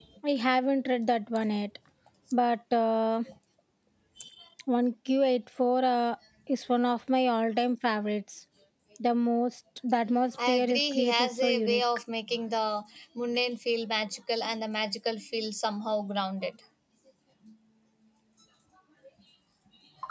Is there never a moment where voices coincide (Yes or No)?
No